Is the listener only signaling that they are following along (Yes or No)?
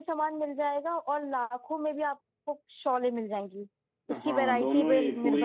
No